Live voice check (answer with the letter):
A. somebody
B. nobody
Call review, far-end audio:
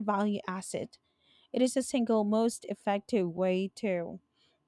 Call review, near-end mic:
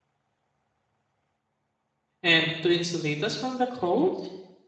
A